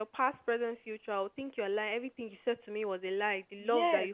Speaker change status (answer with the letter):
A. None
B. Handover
B